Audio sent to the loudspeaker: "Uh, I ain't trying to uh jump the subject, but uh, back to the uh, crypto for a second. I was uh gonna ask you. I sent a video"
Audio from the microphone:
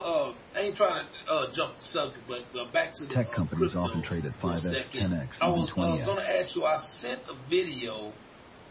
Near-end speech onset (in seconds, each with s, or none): 3.1 s